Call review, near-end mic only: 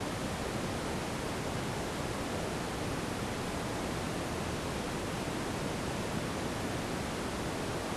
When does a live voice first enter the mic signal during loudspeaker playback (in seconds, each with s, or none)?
none